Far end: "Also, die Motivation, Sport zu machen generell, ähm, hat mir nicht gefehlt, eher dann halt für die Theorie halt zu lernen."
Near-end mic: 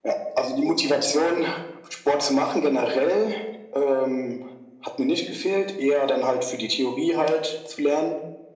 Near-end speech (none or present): none